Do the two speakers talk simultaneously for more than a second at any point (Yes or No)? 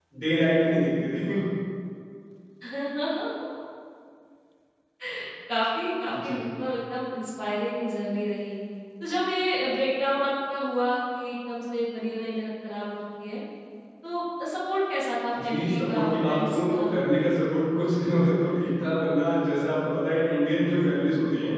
Yes